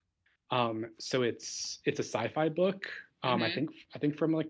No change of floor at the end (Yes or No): Yes